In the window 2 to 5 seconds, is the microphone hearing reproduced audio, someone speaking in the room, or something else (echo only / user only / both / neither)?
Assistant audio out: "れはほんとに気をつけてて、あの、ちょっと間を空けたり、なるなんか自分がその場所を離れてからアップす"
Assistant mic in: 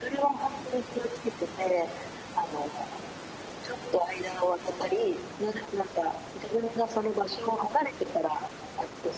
echo only